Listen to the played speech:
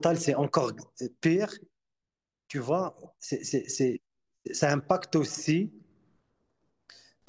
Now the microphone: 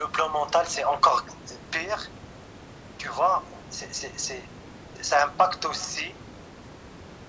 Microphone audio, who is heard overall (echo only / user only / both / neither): echo only